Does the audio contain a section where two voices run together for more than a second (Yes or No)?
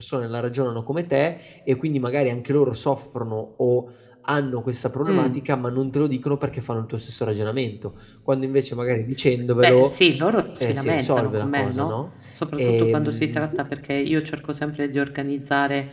Yes